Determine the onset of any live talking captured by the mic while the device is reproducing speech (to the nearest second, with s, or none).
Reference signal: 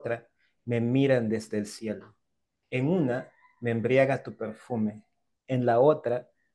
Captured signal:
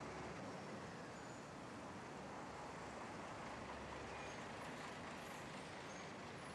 none